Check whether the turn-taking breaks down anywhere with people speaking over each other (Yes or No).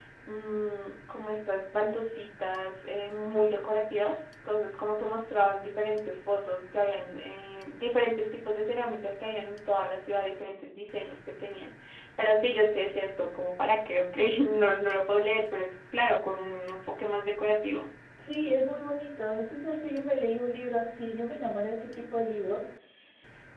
No